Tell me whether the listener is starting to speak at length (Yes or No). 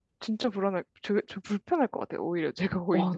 Yes